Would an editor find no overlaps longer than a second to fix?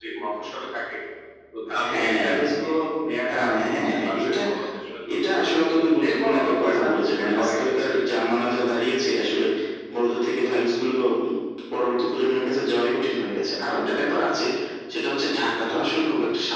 No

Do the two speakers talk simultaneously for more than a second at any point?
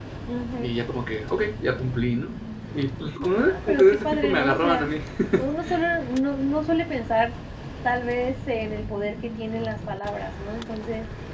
Yes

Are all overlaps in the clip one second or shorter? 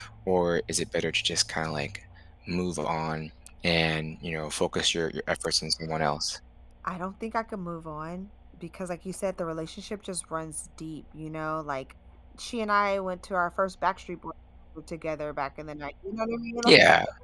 Yes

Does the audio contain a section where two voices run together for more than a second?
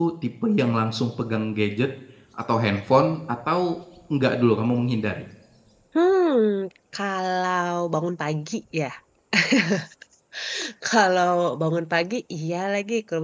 No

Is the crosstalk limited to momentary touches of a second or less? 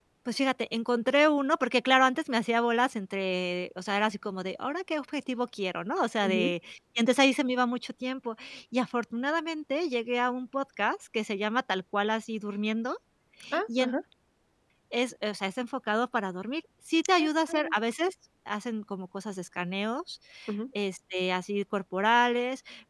Yes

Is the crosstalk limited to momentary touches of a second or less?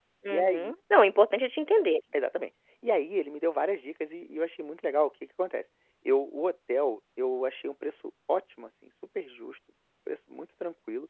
Yes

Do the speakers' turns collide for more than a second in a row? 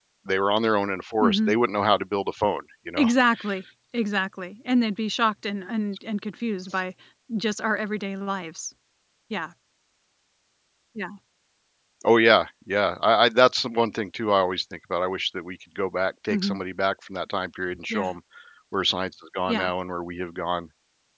No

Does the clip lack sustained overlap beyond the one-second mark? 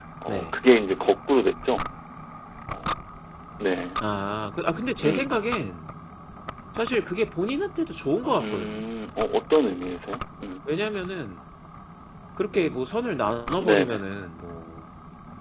Yes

